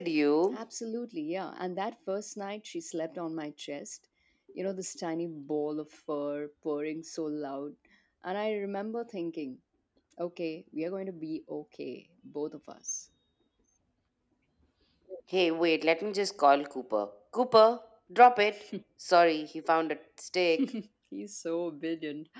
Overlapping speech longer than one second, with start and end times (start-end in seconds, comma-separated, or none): none